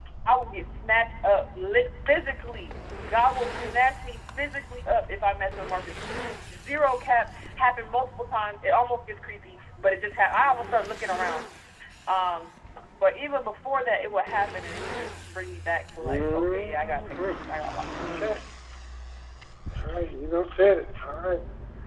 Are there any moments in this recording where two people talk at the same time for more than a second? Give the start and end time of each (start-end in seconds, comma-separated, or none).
16.0-17.2